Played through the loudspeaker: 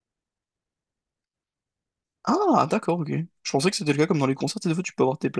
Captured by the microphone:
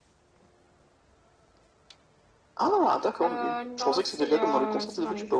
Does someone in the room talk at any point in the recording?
Yes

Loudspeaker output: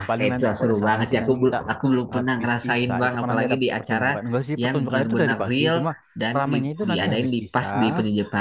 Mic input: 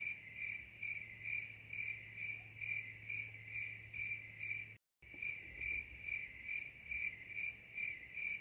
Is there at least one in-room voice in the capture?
No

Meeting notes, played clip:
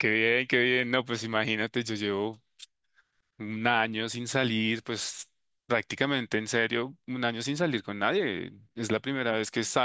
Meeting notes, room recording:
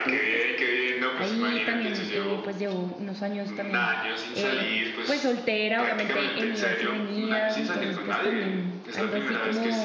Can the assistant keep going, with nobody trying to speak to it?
No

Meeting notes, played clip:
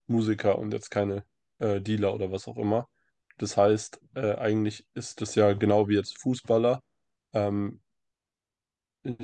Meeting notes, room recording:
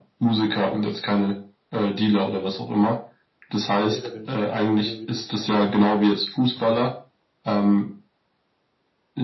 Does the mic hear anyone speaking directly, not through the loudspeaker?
Yes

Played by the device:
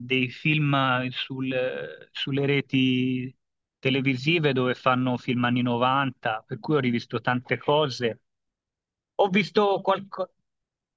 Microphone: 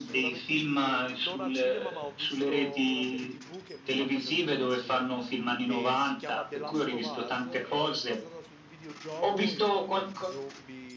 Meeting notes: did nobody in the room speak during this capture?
No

